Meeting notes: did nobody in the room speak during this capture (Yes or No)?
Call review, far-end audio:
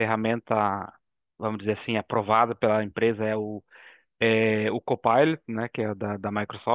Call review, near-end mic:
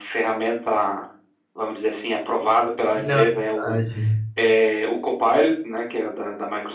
No